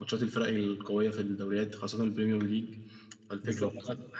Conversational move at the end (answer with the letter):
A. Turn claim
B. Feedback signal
B